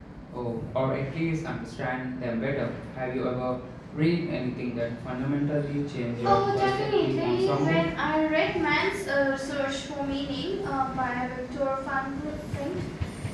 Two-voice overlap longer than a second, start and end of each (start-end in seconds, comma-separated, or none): 6.2-7.8